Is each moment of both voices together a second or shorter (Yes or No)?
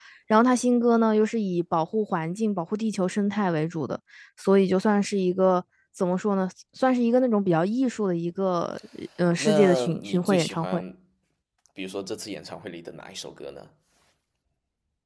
No